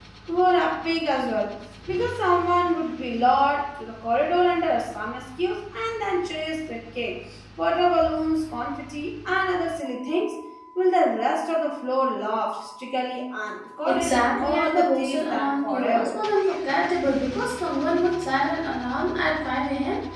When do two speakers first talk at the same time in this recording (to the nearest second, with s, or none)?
14 s